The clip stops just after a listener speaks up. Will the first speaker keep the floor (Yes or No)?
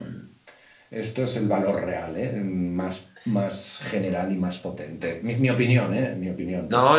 No